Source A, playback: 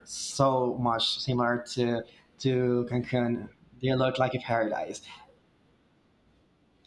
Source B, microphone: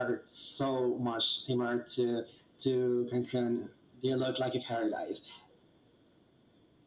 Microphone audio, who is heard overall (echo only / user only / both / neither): echo only